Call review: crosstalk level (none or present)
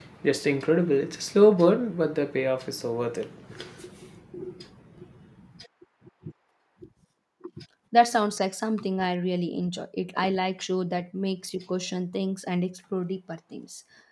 none